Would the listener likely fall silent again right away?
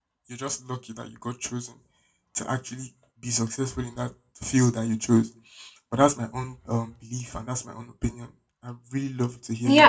No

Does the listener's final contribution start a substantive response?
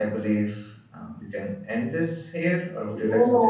Yes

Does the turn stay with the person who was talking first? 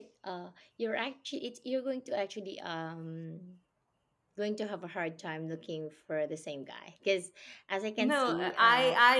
No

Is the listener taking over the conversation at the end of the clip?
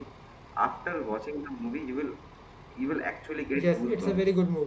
Yes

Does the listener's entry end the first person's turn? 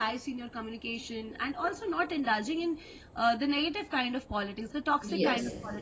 No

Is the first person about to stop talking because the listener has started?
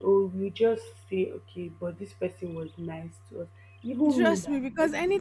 Yes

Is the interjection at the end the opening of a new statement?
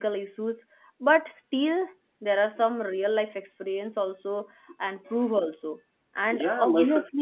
Yes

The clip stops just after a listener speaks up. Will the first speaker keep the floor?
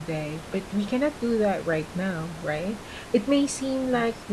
Yes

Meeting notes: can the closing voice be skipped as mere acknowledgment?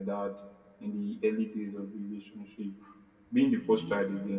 Yes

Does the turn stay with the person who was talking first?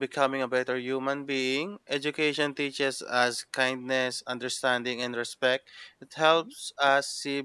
Yes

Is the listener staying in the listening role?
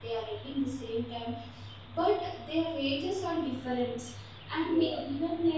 Yes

